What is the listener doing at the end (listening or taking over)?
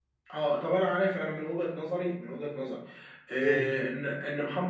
listening